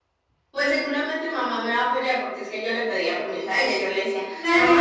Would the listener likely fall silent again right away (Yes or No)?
No